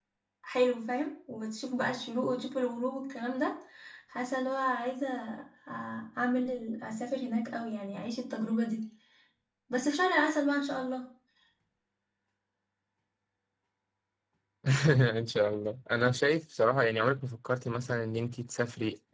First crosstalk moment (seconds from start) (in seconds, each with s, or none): none